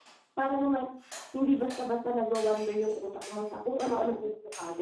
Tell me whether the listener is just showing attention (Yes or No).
No